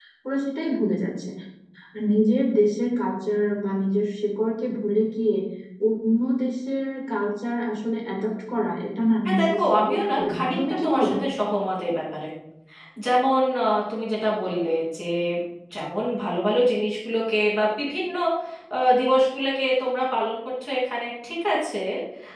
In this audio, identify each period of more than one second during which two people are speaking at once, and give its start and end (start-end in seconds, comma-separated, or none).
9.2-11.1